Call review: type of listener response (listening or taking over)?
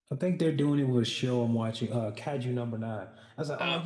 listening